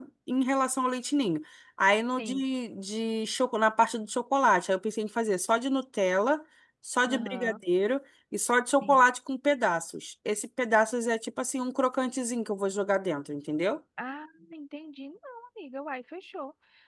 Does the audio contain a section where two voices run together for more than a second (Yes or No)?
No